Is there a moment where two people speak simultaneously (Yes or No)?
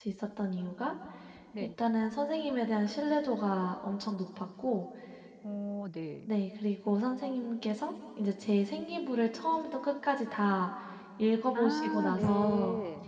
Yes